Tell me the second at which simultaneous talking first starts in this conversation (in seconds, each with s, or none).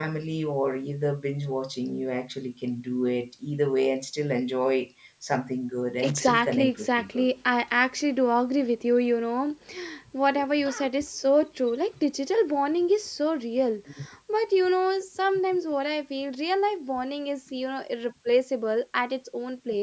6.0 s